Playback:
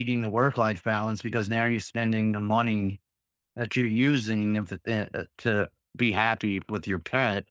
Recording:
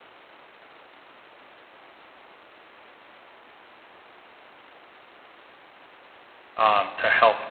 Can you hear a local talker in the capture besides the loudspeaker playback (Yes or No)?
Yes